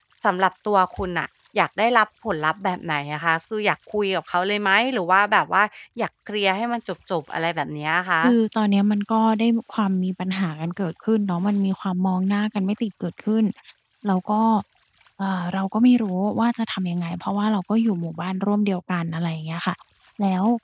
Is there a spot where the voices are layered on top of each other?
No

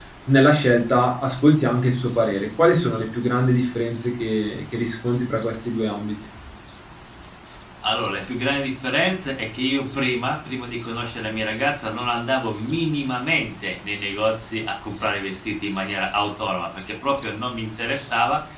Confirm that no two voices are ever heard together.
Yes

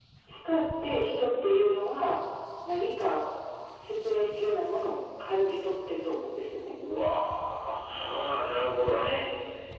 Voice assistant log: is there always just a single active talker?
Yes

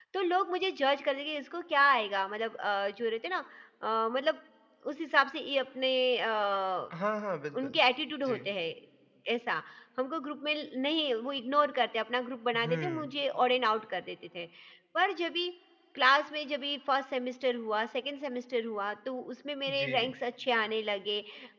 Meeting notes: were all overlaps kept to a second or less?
Yes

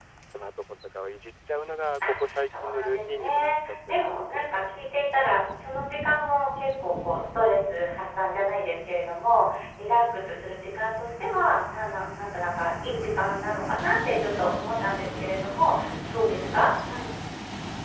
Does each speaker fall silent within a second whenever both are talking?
No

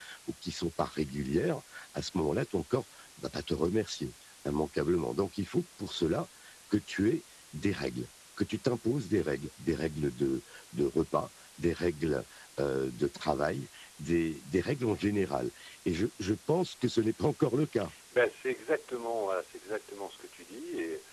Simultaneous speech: No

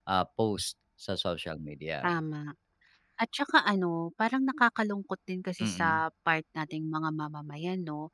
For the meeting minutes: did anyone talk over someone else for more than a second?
No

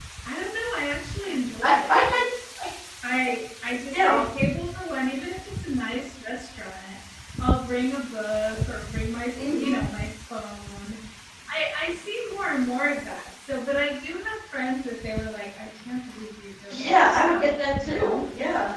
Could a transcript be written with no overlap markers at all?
No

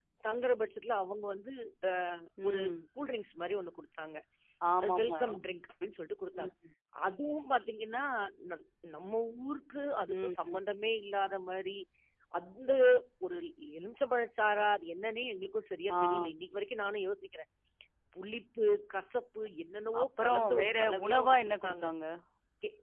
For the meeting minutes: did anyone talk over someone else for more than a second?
Yes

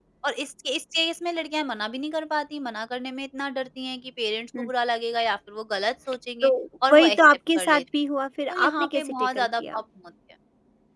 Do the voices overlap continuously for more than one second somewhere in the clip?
Yes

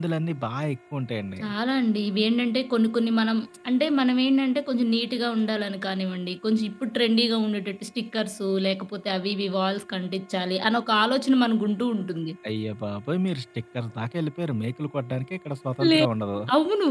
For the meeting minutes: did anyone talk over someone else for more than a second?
No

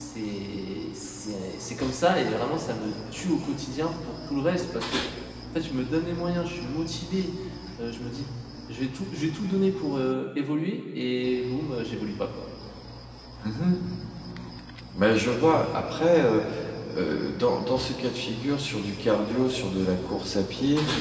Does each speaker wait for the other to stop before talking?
Yes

